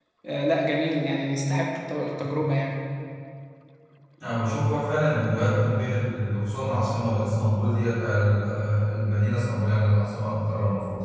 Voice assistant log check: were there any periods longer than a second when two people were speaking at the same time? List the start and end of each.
none

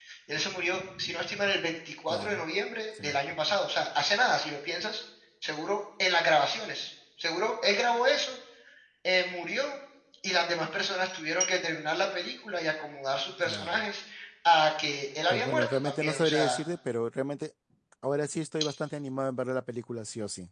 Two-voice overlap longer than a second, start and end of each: 15.3-16.6

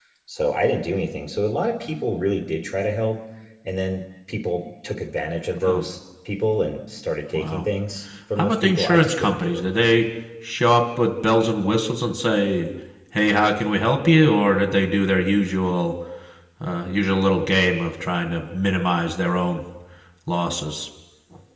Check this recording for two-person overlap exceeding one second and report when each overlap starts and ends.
8.4-9.6

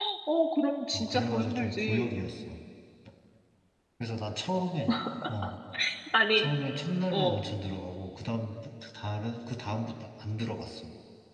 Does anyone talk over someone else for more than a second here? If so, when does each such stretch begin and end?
0.9-2.2

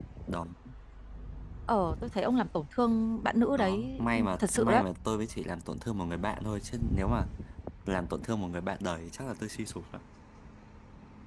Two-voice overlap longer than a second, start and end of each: 3.6-4.8

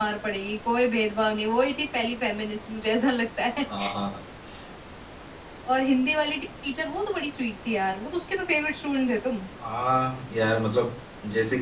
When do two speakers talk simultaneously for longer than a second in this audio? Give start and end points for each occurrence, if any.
none

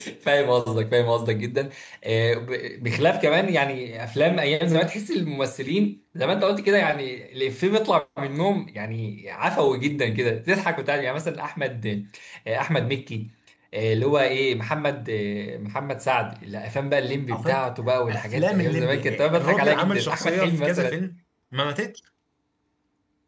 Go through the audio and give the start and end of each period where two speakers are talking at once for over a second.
18.1-20.9

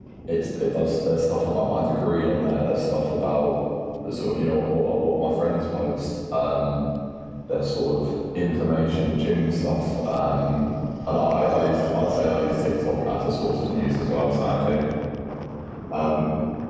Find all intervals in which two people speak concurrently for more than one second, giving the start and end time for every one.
none

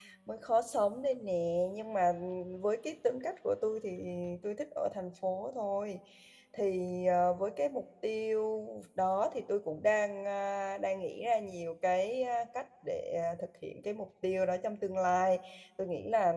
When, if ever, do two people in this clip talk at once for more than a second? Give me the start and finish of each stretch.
none

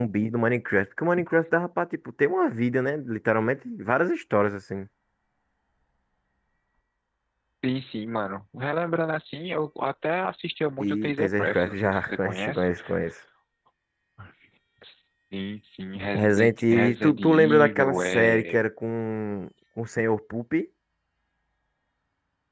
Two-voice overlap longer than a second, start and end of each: 10.8-12.7, 16.1-18.6

